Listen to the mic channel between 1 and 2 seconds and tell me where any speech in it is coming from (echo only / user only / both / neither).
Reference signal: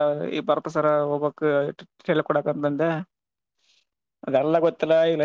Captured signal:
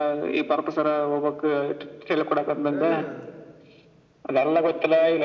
echo only